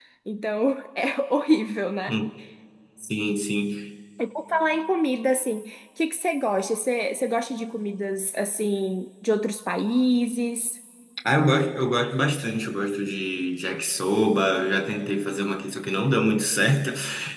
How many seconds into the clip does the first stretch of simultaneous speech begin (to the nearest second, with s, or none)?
none